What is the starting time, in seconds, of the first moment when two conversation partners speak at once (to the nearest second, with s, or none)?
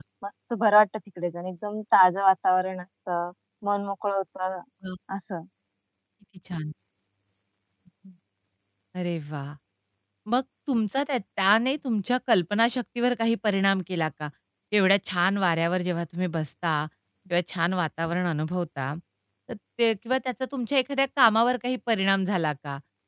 none